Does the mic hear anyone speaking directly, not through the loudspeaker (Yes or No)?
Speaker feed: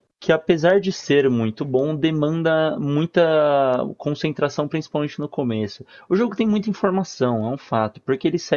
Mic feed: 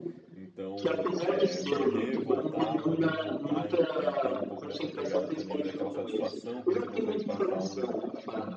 Yes